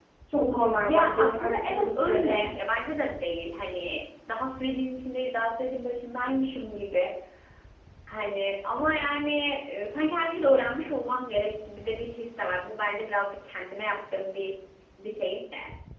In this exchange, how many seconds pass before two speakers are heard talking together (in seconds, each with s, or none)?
0.7 s